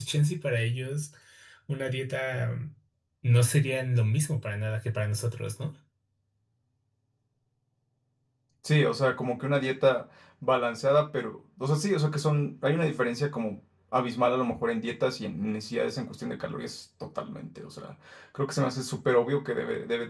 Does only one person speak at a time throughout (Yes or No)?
Yes